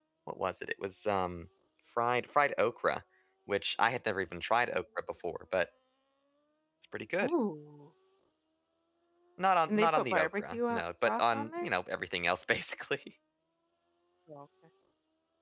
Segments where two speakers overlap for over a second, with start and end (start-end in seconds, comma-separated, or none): 9.7-11.7